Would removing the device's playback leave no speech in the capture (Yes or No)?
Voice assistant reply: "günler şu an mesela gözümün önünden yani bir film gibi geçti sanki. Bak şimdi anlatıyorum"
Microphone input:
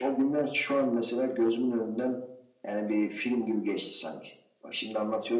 Yes